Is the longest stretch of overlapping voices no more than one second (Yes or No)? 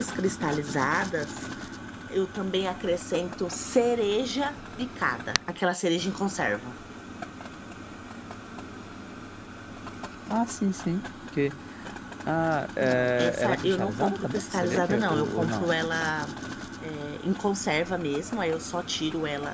No